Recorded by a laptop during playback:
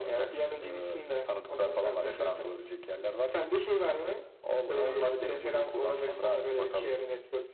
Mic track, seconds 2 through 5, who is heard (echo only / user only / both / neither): echo only